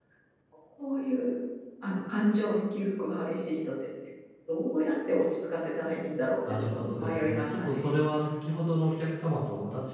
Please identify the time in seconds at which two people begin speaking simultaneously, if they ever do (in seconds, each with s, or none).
6.4 s